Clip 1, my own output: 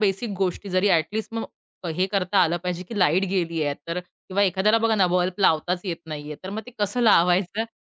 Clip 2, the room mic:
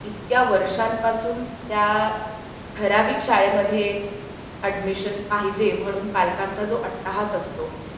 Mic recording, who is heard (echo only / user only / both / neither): user only